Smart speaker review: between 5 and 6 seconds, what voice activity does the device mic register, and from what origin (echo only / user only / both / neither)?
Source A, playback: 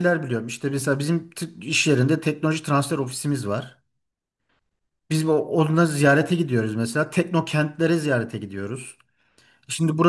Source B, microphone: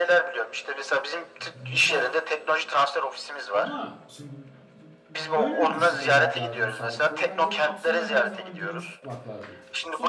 both